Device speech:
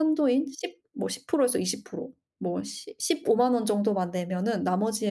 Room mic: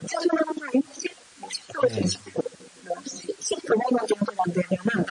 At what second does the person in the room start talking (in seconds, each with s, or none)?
1.8 s